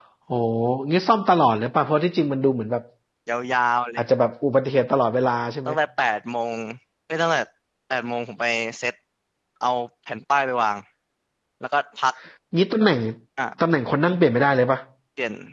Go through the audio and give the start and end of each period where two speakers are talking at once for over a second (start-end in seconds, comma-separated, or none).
none